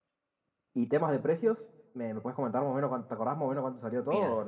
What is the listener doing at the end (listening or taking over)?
taking over